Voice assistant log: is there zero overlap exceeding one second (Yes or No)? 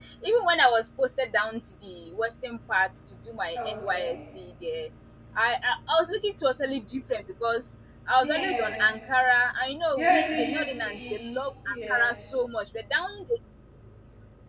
No